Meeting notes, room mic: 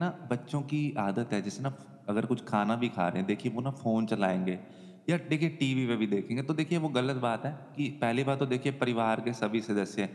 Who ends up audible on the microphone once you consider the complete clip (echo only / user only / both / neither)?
echo only